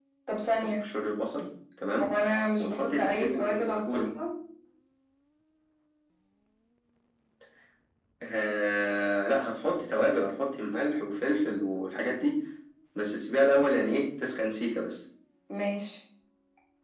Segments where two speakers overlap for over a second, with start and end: 2.6-4.1

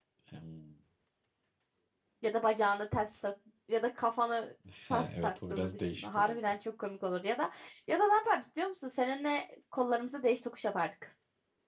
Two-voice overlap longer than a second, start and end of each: 4.9-6.4

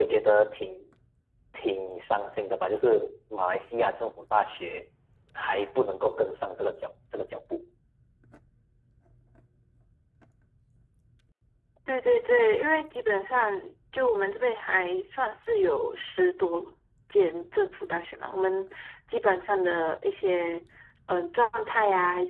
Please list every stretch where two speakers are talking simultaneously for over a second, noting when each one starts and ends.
none

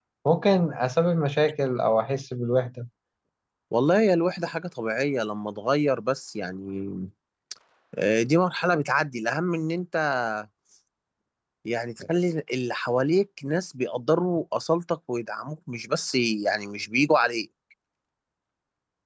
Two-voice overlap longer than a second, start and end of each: none

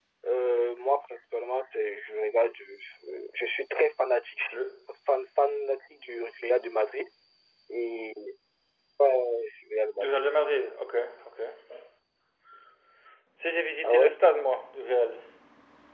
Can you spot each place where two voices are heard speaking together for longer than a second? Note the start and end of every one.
none

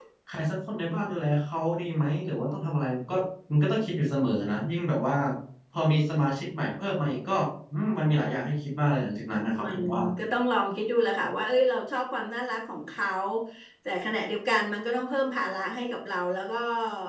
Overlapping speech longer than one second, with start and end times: none

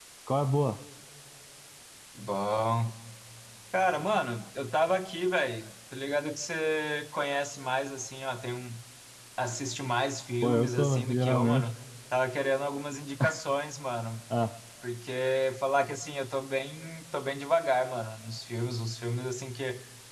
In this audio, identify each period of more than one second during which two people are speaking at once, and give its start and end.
10.4-11.7

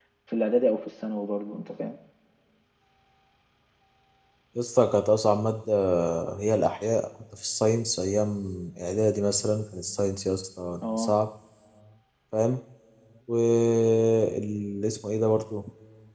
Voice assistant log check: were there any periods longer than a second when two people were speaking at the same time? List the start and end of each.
none

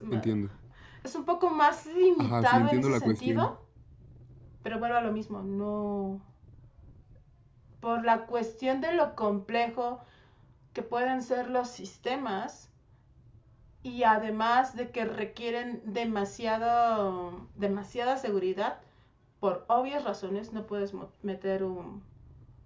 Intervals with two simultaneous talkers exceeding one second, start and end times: 2.2-3.5

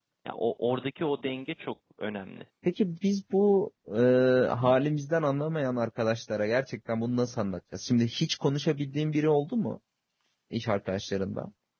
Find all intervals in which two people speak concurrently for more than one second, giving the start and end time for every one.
none

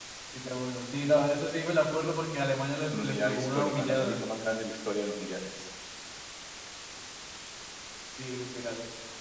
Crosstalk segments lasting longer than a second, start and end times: 2.9-4.2

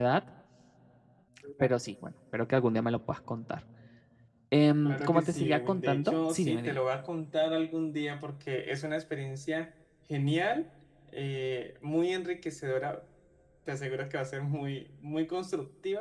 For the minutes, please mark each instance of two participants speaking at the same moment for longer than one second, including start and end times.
4.8-6.8

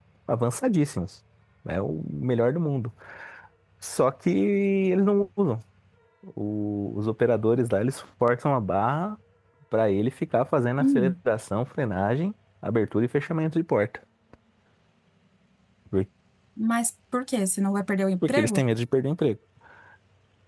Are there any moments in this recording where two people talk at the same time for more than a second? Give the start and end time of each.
none

